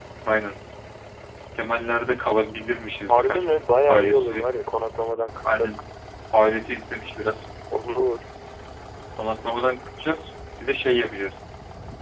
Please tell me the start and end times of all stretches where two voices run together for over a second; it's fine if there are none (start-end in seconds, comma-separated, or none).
3.1-4.4